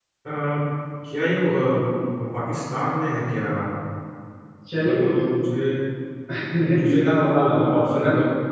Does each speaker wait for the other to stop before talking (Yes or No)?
No